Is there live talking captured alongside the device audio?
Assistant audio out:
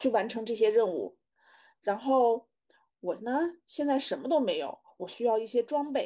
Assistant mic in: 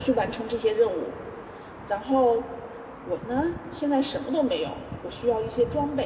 No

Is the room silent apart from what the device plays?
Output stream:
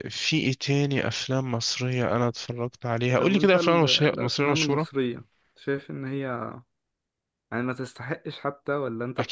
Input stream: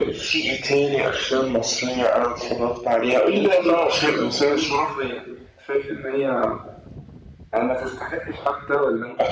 Yes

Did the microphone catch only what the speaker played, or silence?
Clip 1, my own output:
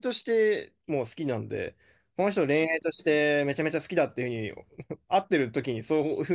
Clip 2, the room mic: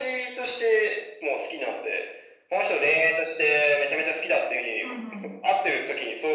No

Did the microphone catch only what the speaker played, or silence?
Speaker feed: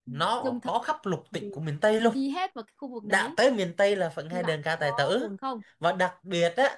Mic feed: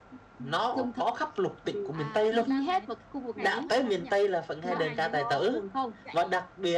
No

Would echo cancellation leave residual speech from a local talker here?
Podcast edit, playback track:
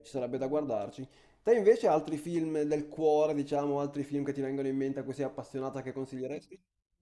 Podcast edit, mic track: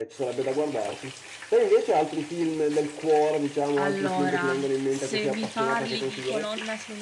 Yes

